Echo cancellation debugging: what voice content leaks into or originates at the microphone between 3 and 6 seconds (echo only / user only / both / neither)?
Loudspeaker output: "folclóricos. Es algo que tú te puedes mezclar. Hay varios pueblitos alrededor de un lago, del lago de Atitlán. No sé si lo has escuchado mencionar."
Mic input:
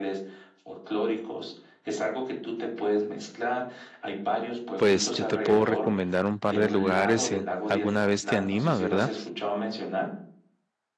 both